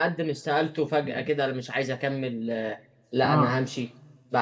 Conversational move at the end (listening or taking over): listening